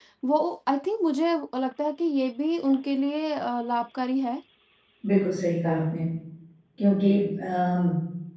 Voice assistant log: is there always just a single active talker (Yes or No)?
Yes